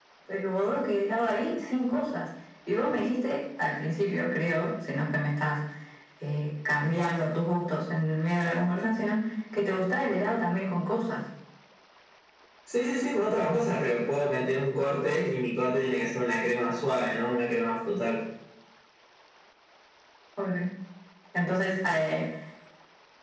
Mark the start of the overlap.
none

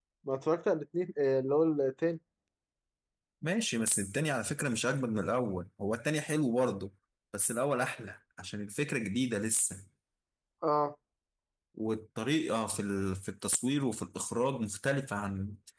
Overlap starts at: none

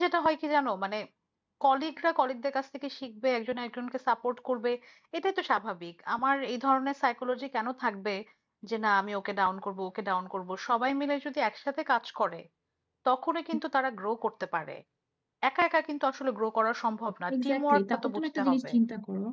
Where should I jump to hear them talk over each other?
17.3 s

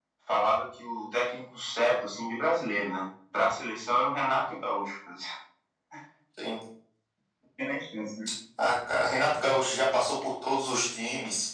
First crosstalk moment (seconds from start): none

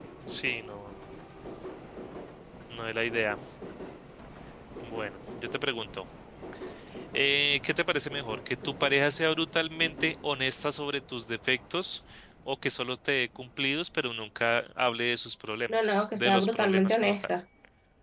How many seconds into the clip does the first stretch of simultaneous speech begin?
15.7 s

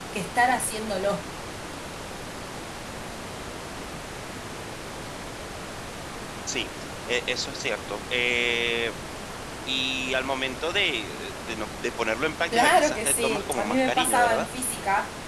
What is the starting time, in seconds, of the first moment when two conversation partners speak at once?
12.5 s

